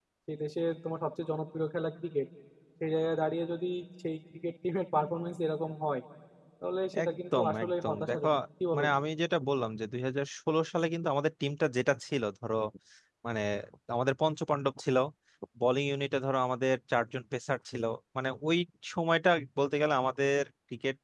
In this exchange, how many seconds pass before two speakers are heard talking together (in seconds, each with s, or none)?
7.0 s